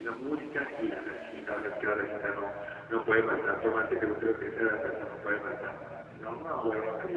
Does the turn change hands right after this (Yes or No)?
Yes